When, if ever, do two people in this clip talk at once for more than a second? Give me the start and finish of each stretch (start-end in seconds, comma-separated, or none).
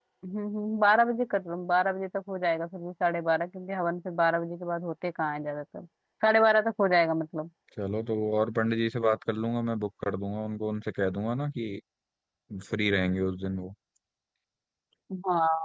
none